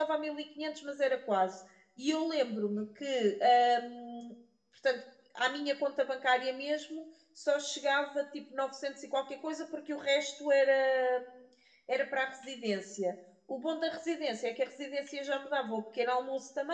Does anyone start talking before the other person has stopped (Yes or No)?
No